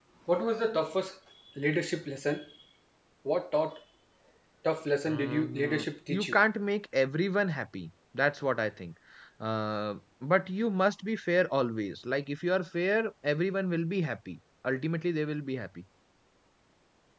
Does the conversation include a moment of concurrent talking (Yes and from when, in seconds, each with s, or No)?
Yes, from 5.1 s